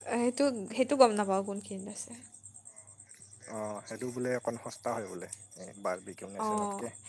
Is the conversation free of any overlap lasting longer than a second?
Yes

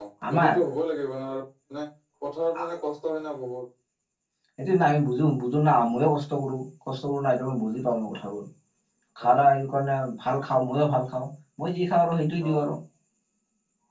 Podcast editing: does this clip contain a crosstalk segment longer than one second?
No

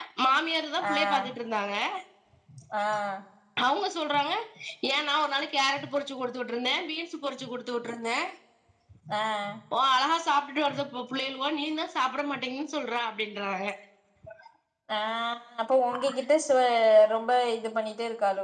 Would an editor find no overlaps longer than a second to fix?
Yes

